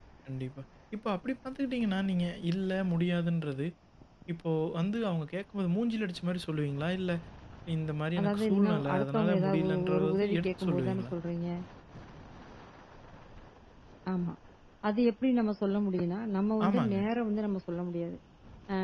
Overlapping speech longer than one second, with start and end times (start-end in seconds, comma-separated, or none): 8.2-11.1